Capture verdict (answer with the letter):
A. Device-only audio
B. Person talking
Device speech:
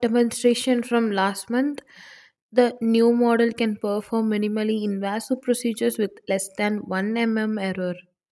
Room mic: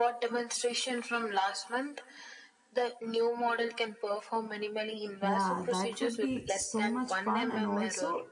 B